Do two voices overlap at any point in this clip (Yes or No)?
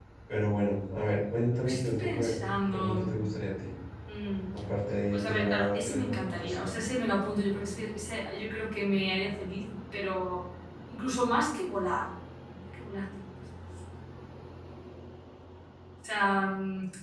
Yes